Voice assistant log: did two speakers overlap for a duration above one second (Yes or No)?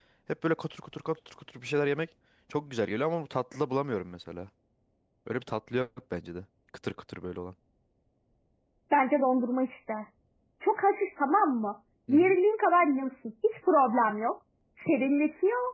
No